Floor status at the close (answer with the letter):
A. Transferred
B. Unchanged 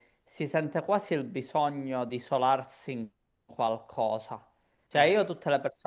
B